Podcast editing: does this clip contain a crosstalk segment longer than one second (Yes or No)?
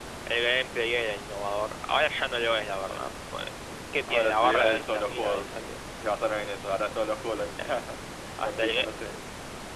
Yes